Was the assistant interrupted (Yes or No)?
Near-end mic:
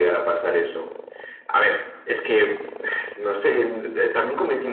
No